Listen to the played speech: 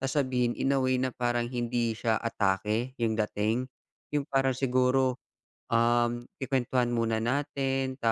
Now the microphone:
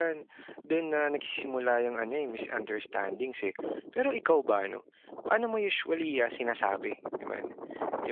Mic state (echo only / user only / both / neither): user only